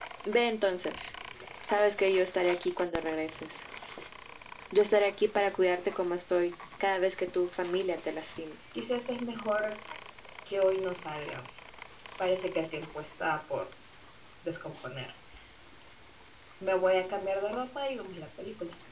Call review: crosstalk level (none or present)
none